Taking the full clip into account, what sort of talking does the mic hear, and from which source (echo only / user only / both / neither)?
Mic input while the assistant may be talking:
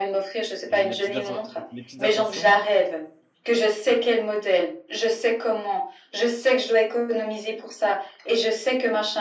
both